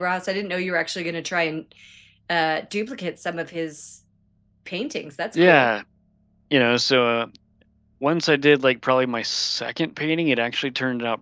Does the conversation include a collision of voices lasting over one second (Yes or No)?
No